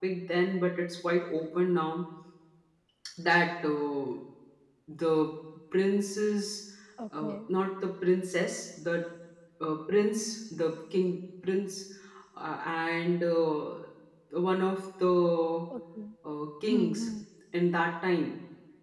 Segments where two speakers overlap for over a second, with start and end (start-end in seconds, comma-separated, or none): none